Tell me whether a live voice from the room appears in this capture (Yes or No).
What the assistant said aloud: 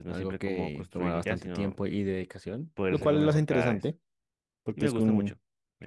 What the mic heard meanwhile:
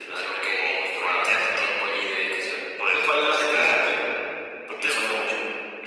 No